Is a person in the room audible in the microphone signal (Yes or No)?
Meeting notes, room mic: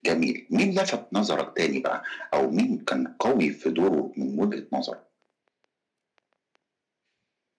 No